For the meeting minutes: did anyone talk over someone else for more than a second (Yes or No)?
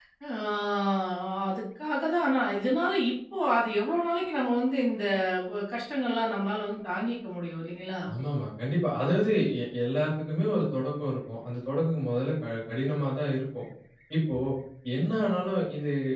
No